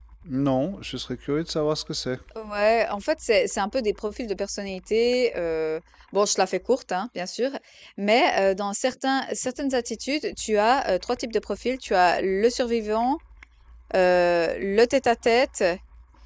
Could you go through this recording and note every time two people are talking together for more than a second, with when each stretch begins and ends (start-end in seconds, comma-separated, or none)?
none